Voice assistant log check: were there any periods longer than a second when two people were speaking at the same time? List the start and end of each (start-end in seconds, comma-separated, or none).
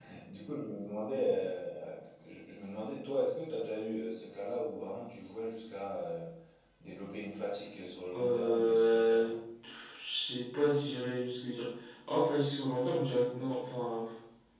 8.1-9.4